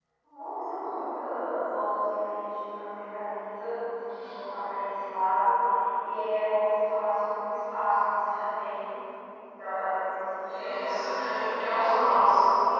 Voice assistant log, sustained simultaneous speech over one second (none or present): present